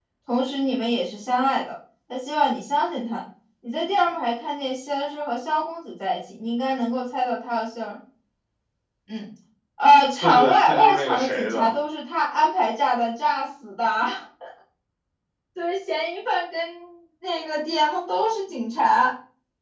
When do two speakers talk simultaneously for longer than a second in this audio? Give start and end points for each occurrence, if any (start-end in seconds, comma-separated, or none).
10.2-11.7